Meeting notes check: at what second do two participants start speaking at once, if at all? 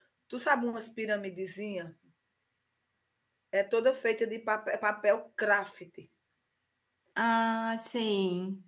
none

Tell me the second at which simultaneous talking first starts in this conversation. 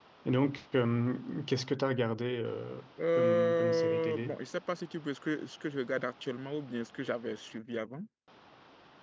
3 s

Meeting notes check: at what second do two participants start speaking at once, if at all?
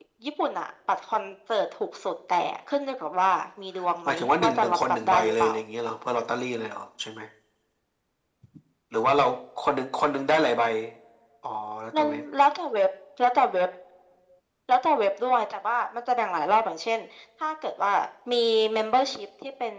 4 s

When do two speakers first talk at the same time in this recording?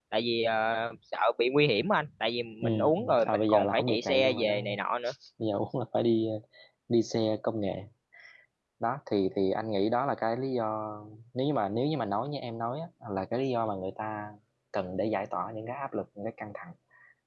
3 s

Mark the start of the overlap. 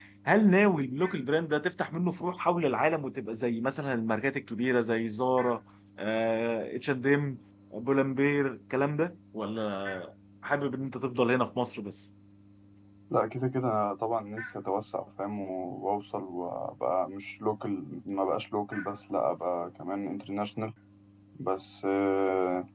none

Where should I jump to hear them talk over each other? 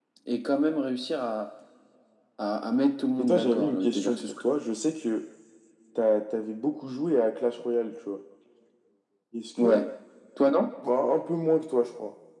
3 s

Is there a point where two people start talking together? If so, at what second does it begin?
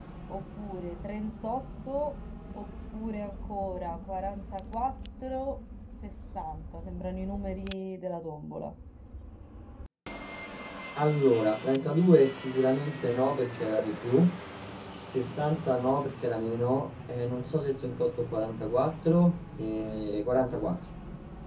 none

